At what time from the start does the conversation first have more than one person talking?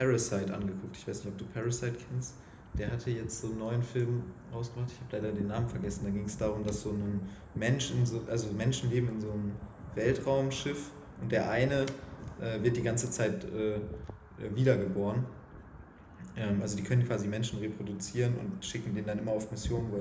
none

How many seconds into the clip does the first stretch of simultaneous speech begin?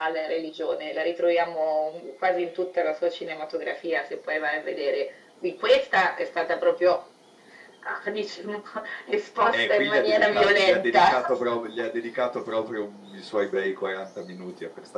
9.5 s

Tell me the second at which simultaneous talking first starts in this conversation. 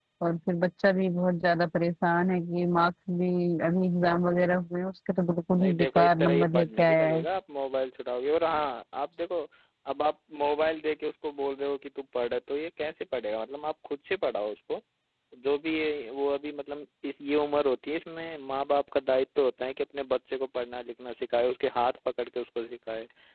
5.5 s

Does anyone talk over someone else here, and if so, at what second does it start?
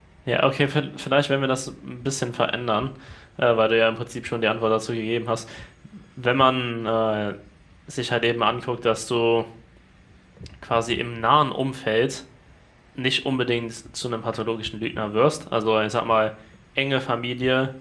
none

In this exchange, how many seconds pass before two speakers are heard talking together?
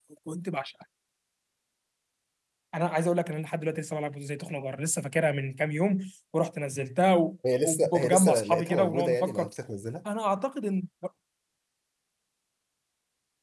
7.4 s

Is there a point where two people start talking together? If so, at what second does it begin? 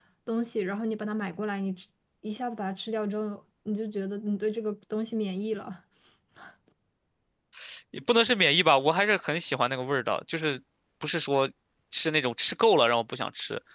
none

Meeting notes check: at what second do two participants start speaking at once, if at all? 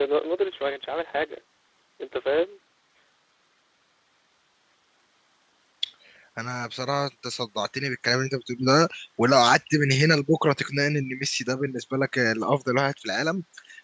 none

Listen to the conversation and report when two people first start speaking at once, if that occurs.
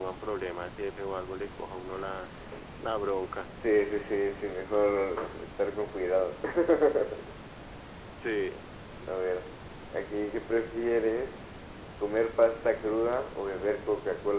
none

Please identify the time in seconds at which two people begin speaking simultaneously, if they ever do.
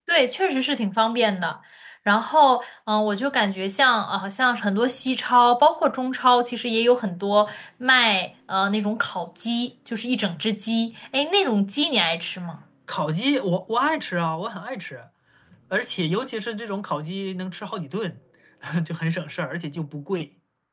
none

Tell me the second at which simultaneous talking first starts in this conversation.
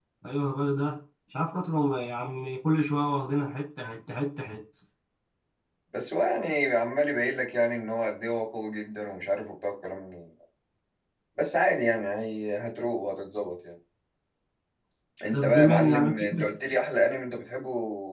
15.3 s

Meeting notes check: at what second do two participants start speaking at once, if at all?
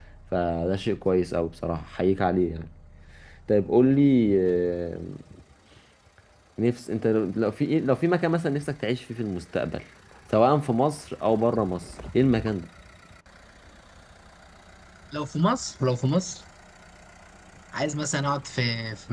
none

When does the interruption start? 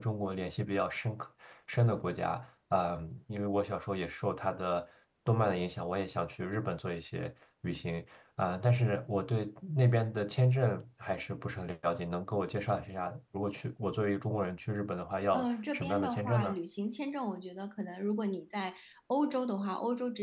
15.3 s

